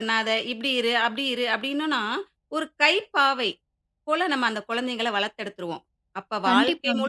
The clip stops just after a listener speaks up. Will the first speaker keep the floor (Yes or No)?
Yes